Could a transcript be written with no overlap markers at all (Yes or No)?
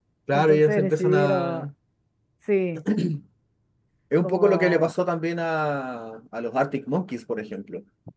No